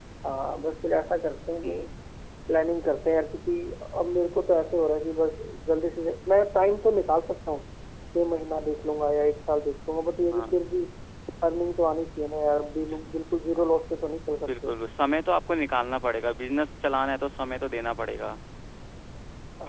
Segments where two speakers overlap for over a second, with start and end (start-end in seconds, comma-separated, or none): none